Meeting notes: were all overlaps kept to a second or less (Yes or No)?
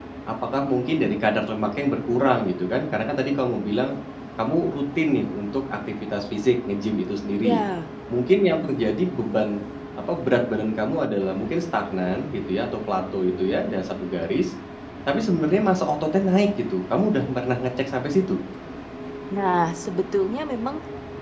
Yes